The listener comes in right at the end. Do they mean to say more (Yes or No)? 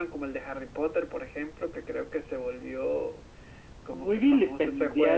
Yes